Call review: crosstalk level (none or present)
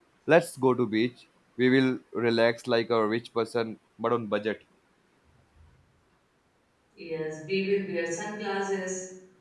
none